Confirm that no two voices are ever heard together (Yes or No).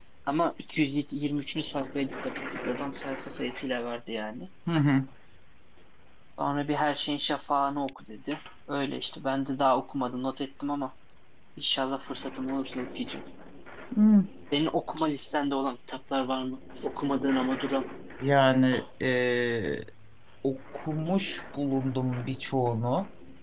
Yes